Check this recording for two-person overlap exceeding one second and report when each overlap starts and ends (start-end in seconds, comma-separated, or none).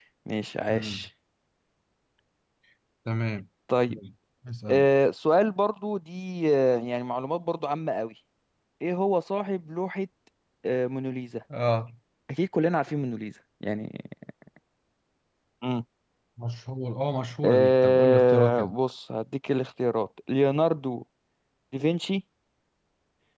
17.4-18.7